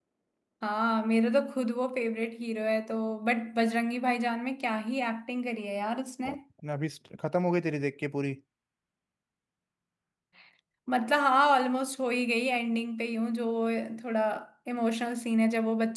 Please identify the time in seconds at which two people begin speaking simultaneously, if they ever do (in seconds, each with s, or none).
none